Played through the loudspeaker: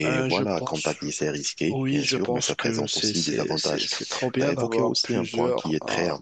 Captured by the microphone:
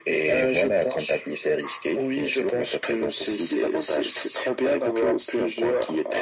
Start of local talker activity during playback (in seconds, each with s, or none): none